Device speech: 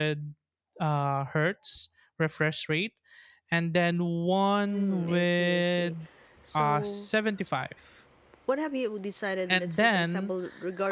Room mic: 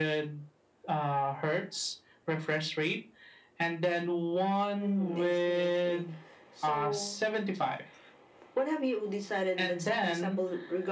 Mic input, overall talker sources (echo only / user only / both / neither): echo only